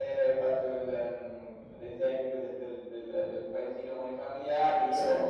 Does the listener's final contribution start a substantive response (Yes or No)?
No